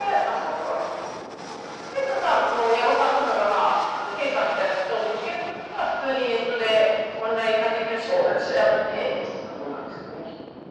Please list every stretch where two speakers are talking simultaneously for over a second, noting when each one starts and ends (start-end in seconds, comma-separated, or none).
8.0-9.6